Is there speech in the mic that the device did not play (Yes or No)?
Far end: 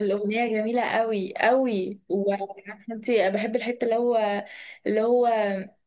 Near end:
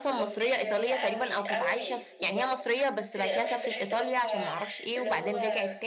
Yes